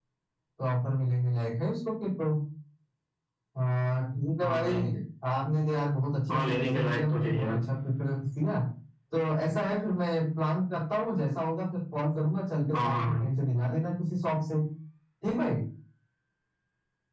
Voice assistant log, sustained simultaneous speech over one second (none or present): present